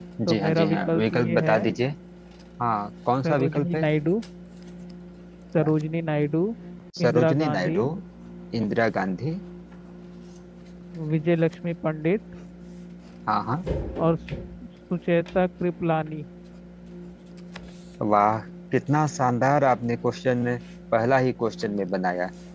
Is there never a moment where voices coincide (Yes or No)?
No